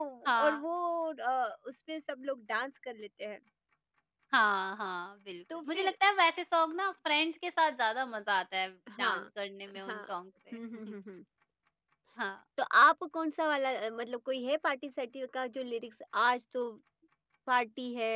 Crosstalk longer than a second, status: none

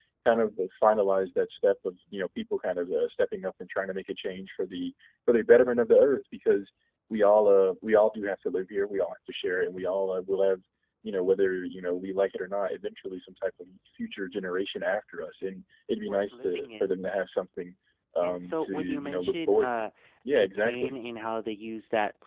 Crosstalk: present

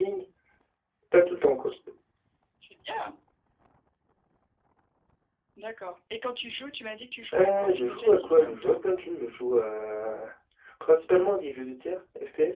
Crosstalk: present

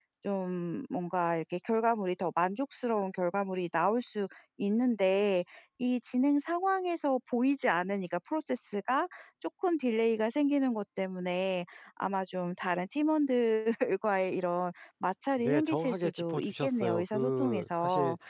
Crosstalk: present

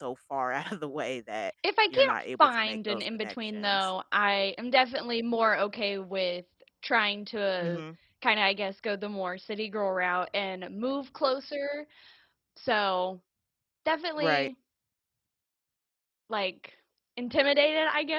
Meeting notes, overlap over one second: present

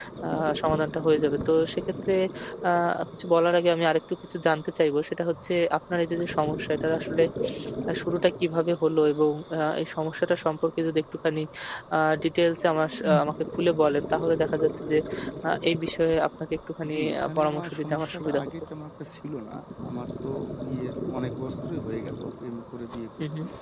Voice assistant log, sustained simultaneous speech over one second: present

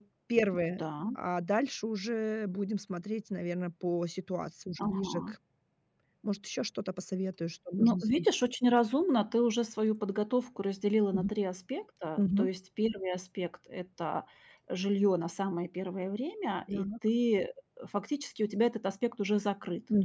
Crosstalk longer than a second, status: none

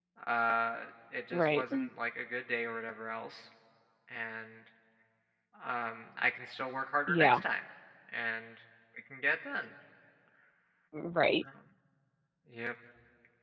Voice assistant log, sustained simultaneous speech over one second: none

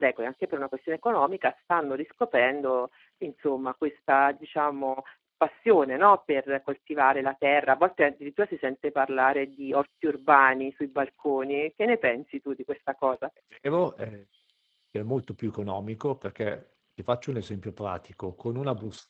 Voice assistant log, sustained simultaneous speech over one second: none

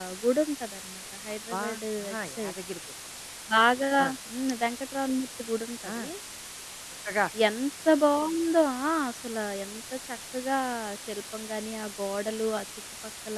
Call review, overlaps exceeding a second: none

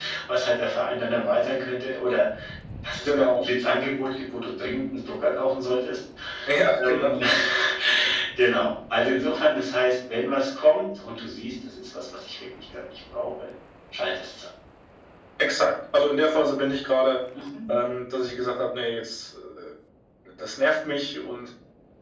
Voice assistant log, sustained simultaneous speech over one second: none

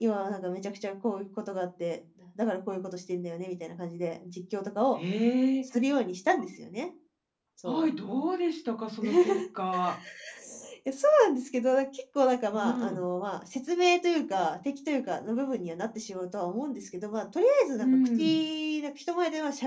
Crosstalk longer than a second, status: none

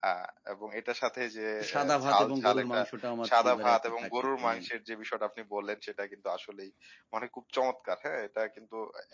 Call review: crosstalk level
present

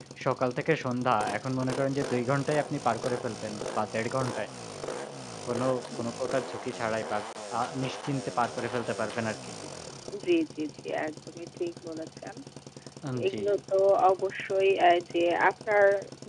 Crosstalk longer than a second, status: none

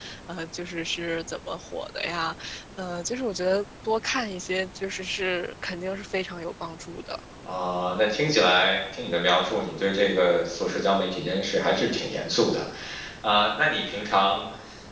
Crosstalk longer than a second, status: none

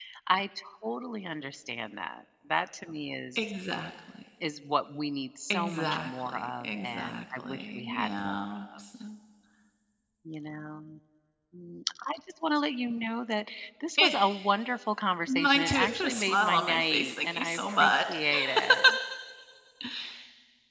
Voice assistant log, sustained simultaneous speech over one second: present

